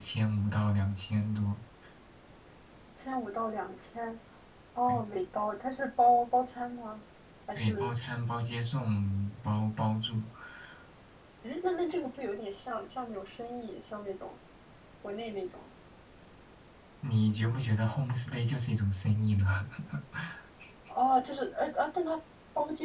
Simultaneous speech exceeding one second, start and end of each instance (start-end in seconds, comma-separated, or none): none